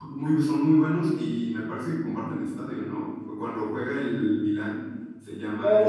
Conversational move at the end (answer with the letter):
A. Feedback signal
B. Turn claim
B